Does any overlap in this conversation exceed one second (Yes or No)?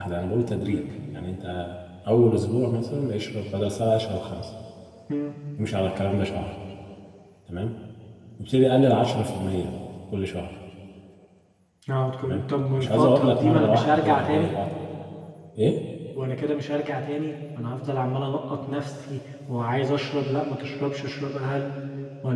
Yes